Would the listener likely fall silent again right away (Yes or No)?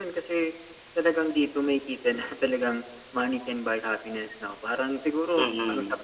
Yes